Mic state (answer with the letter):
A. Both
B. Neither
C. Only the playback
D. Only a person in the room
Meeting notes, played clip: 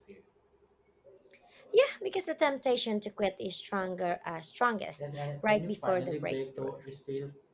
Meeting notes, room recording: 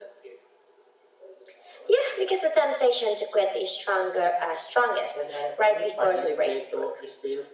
C